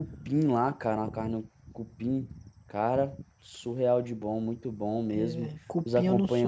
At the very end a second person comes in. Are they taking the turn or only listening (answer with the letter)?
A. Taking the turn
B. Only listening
A